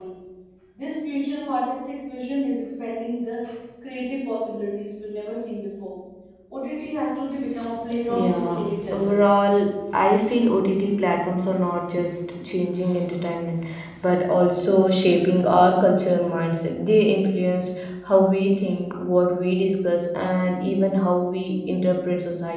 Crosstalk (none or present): present